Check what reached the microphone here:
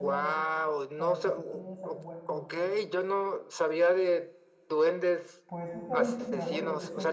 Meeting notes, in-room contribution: present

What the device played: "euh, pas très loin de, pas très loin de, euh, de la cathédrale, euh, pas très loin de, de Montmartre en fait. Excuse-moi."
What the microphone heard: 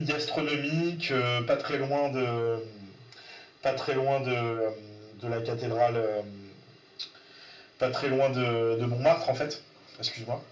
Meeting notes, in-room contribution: none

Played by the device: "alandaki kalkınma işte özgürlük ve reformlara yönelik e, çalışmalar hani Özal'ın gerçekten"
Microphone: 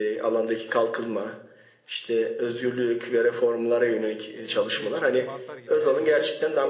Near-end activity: present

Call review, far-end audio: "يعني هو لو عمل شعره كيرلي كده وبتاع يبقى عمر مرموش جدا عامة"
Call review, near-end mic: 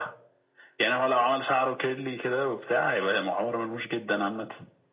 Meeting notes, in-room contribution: none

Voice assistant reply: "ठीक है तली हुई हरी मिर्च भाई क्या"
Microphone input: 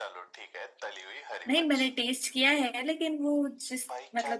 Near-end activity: present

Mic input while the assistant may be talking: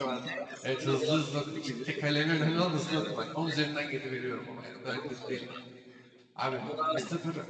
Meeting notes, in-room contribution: present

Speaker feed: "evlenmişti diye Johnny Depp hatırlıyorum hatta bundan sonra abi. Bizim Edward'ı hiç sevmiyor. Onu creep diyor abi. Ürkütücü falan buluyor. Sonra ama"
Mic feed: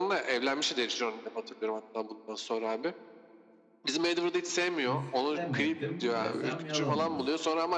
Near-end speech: present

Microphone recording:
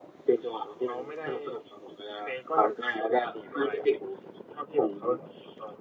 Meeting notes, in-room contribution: none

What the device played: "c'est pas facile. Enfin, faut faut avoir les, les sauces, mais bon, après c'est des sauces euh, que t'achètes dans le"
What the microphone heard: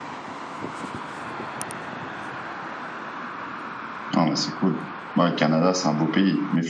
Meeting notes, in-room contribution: present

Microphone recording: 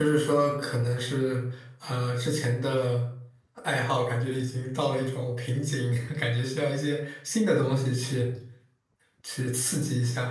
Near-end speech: present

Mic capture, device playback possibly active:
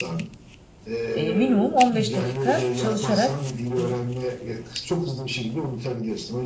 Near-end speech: present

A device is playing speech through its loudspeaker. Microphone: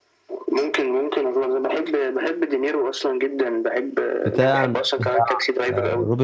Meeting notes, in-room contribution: present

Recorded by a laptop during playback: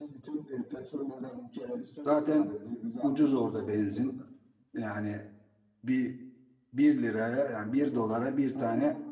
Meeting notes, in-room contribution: present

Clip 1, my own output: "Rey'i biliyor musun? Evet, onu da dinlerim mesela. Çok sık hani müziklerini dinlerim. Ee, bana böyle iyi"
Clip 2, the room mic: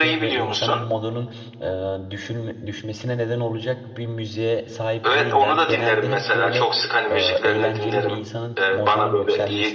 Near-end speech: present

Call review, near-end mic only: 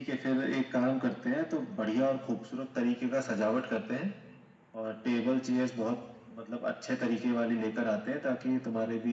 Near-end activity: none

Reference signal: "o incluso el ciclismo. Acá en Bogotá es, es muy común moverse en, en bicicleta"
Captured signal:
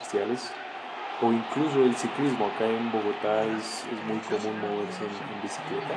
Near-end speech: present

